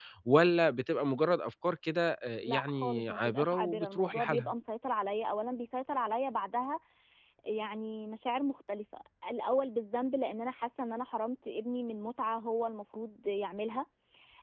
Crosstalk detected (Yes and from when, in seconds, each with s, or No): Yes, from 2.5 s